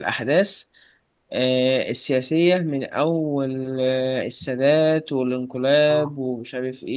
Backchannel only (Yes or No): Yes